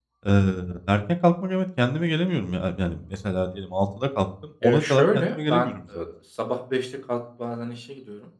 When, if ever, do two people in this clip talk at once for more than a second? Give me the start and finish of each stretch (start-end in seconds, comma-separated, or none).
4.6-6.0